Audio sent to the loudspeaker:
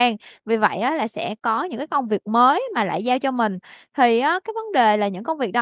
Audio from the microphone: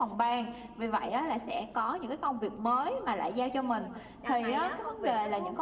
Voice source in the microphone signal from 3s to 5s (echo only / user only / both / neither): both